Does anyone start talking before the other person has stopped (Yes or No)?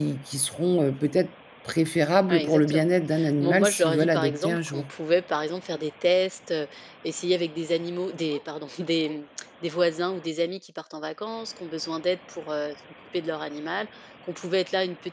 Yes